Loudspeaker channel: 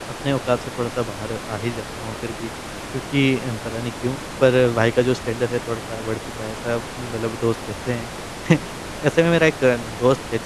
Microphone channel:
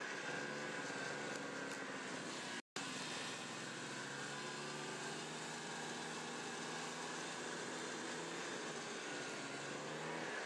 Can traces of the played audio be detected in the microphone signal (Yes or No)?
No